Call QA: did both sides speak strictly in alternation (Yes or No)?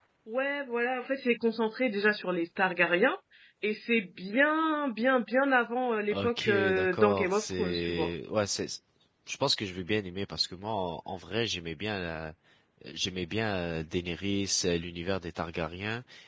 No